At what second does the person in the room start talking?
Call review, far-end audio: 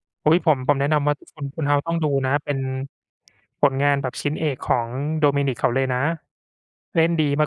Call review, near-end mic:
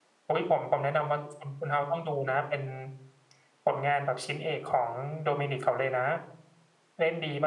none

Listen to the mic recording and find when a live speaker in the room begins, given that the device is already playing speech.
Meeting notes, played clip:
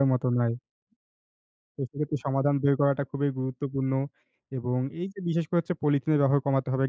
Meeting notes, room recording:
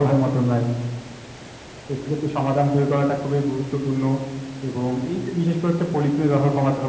none

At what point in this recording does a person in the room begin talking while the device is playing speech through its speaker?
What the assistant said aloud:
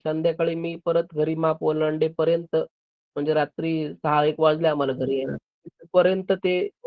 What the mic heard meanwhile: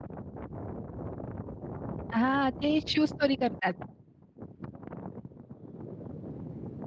2.1 s

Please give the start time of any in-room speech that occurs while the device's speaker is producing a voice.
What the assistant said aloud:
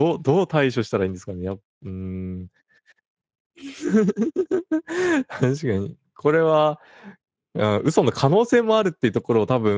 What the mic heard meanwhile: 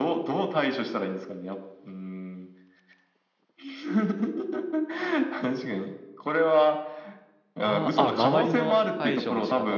7.6 s

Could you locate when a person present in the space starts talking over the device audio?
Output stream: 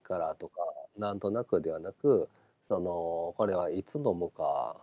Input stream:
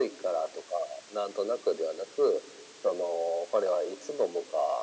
none

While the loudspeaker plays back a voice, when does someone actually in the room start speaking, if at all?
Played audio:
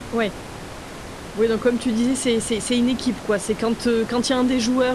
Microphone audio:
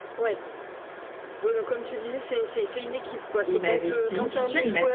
3.4 s

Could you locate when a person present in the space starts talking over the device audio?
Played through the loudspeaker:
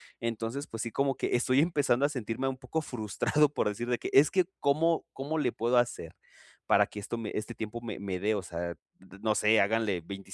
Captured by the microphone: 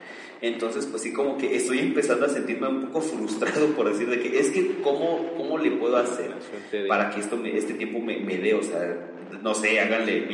5.6 s

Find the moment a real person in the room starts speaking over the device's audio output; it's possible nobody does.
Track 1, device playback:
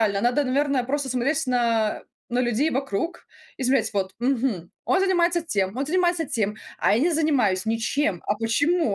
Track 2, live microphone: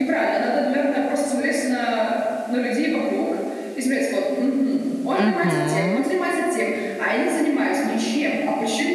5.1 s

